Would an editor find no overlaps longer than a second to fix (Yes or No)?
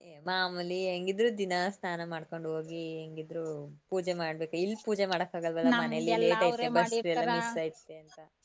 No